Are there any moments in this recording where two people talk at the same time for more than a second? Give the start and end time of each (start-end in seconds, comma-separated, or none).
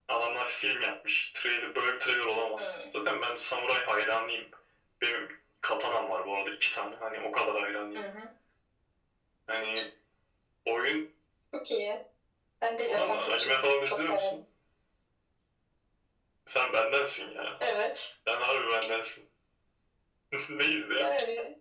12.9-14.4